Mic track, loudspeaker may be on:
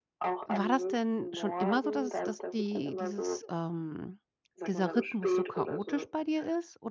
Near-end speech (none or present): present